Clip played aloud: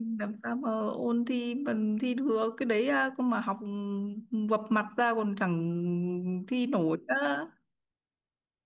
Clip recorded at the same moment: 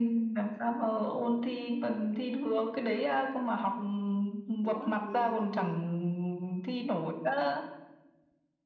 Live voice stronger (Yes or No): No